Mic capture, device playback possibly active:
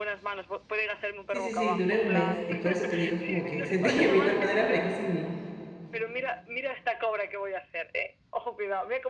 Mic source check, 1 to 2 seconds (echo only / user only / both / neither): both